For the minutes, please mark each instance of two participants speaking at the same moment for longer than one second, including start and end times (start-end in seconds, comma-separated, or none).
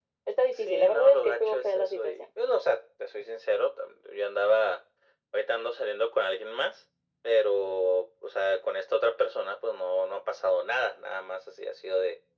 0.5-2.2